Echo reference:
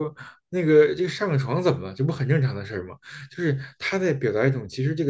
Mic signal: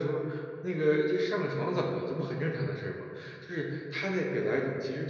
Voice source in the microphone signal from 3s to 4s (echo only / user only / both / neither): echo only